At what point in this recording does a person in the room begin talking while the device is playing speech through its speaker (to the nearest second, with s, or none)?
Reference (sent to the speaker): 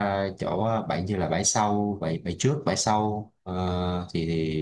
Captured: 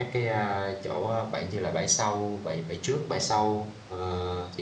none